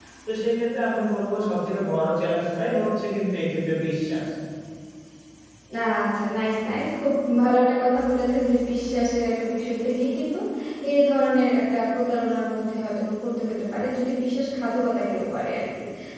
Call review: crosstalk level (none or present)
none